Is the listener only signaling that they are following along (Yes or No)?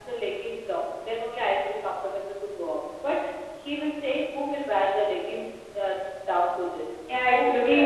No